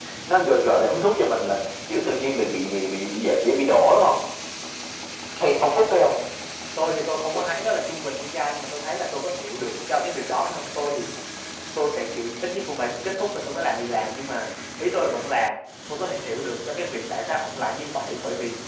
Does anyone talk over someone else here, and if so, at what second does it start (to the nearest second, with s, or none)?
none